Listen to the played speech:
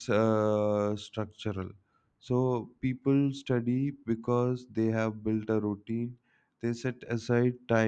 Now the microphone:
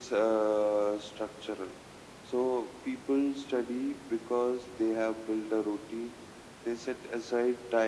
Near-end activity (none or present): none